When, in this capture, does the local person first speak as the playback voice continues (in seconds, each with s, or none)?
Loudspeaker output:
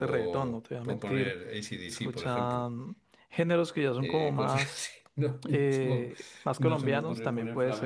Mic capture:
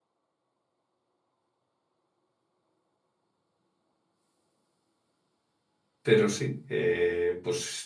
6.0 s